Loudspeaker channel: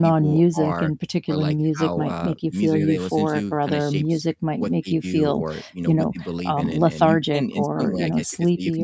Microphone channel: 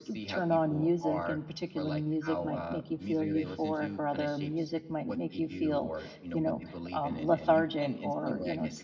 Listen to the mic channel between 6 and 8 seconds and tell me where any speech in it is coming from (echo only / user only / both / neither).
echo only